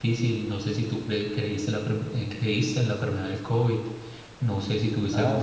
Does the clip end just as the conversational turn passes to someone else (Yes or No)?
No